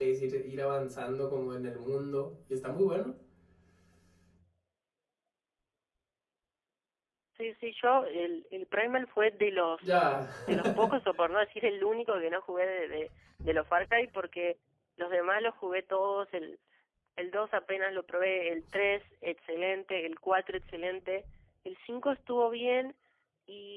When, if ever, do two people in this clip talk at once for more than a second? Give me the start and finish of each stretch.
none

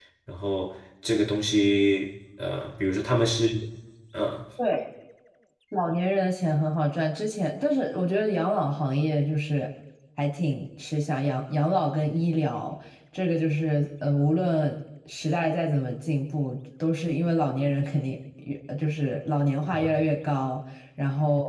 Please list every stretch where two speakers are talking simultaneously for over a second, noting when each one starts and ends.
none

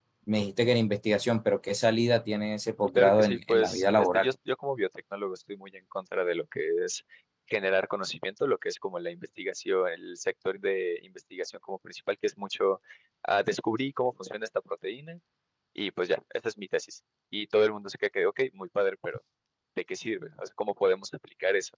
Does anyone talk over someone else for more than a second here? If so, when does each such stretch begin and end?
3.0-4.3

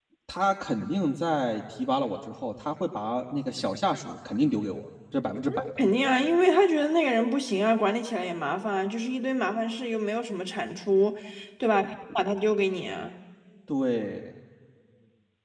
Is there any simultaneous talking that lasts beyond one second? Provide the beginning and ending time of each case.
none

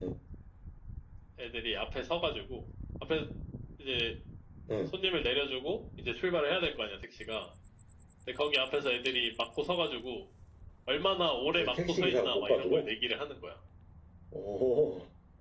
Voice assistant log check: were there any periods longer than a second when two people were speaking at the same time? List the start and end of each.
11.5-12.9

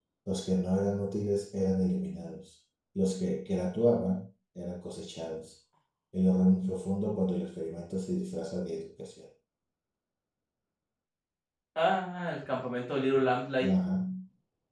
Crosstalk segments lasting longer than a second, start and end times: none

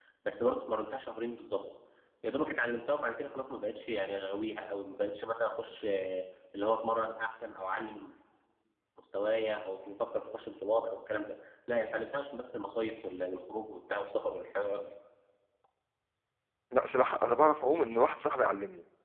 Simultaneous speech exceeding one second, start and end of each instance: none

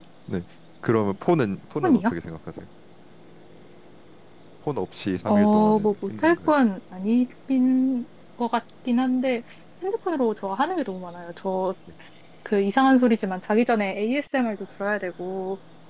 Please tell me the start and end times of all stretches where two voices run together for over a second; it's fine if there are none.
5.3-6.5

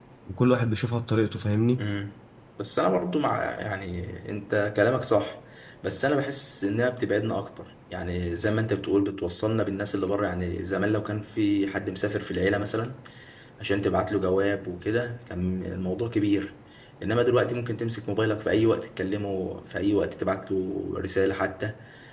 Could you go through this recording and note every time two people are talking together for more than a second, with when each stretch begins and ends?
none

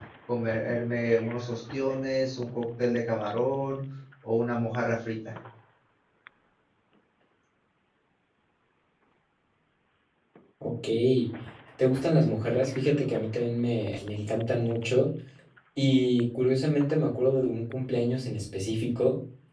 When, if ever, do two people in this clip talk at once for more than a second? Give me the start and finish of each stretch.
none

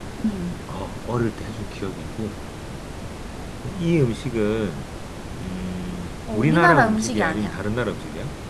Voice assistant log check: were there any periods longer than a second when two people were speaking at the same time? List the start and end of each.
6.3-7.6

